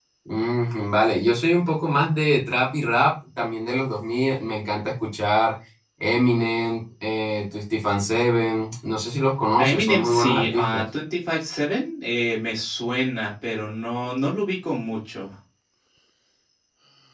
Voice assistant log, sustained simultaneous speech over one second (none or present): present